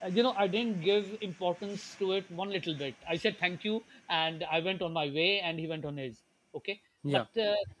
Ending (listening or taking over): listening